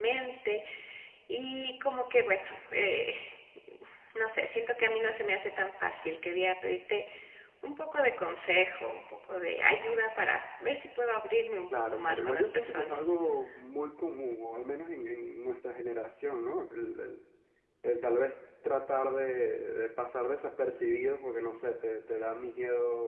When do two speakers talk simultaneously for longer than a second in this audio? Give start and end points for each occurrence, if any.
11.9-13.1

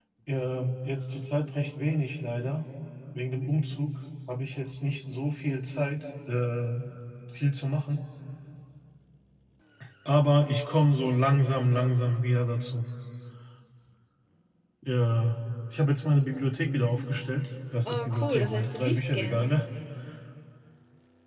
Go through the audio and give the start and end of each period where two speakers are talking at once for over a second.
17.8-19.6

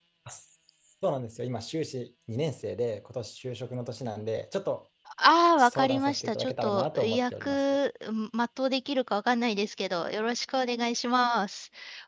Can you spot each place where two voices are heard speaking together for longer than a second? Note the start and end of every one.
5.6-7.8

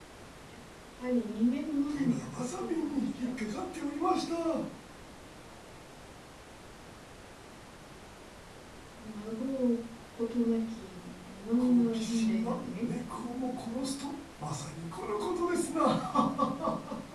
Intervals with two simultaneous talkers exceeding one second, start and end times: 1.9-3.3, 11.6-12.8

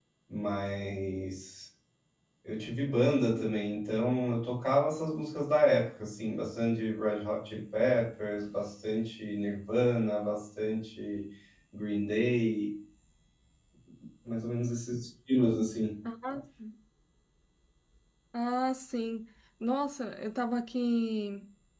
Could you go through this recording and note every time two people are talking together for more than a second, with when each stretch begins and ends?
none

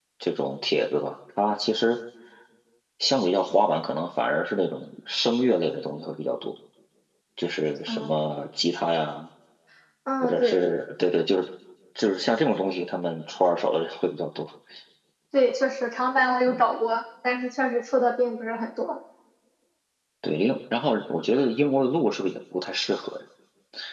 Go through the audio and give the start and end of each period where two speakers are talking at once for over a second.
none

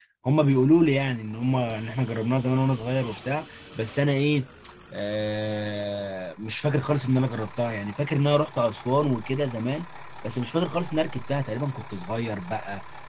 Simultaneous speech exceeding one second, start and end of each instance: none

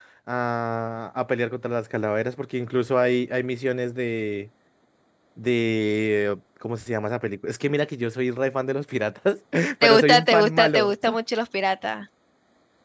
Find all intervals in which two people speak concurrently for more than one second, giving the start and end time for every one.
9.8-11.2

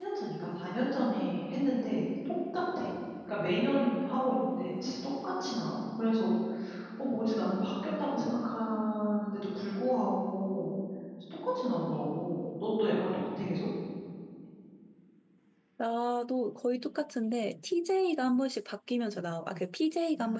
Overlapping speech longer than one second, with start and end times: none

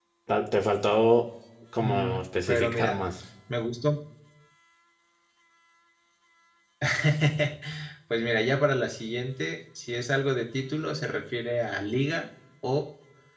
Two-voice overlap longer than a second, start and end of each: 1.8-3.0

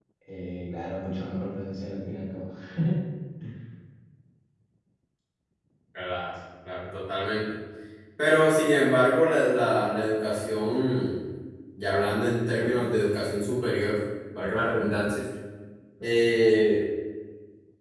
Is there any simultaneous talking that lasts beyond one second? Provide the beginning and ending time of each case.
none

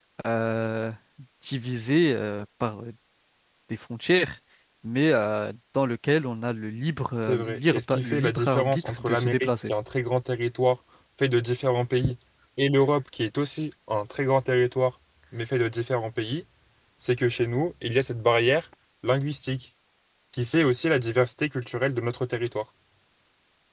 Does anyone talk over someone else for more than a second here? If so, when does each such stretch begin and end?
7.2-9.7

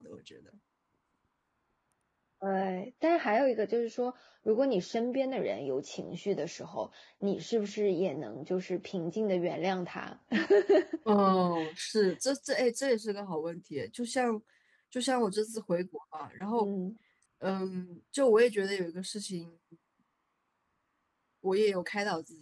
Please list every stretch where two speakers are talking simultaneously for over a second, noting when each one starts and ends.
none

